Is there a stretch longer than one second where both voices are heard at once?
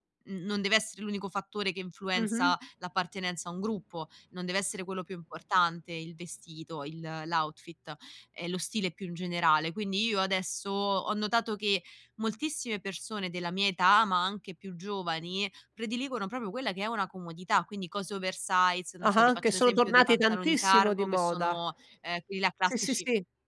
Yes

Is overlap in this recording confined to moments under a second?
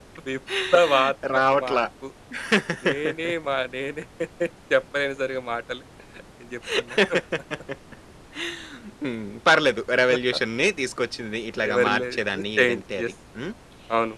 No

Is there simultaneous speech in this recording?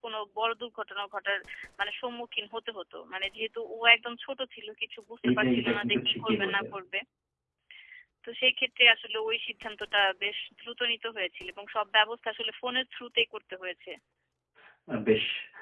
Yes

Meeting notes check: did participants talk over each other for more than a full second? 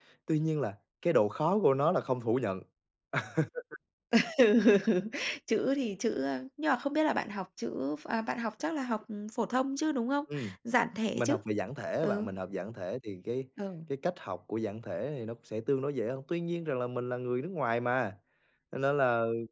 No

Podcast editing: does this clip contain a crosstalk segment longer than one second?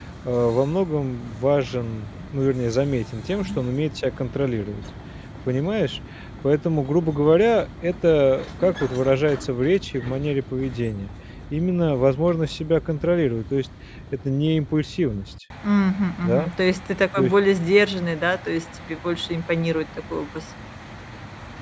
No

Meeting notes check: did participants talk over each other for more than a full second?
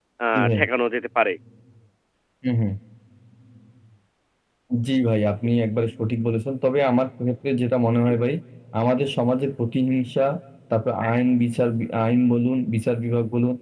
No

